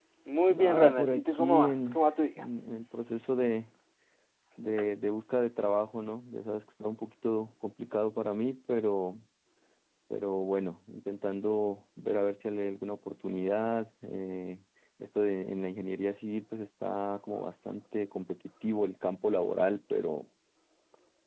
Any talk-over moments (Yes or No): Yes